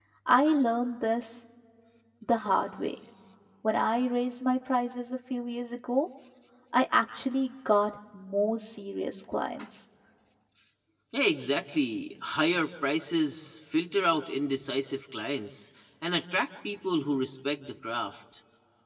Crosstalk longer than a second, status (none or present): none